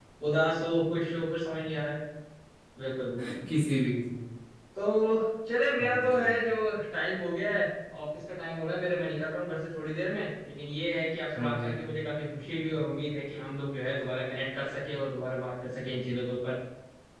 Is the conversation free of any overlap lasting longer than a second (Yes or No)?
Yes